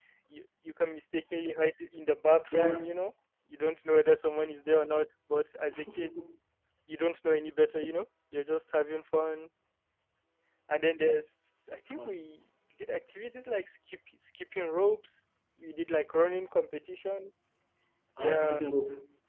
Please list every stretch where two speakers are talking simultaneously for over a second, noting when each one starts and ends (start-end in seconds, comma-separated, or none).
none